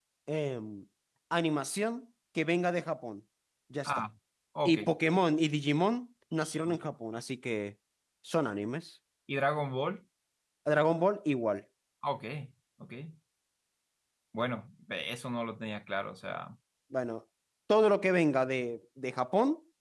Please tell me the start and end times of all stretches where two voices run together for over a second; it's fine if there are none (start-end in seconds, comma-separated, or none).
none